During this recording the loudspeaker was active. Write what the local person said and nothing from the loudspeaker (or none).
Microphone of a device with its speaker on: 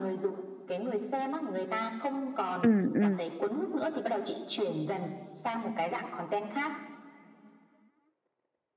ừ ừ